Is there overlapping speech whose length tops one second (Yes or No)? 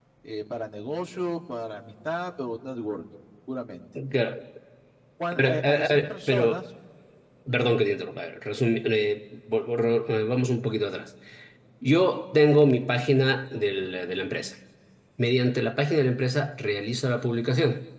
Yes